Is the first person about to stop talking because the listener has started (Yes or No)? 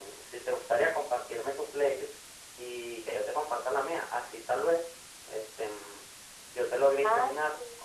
No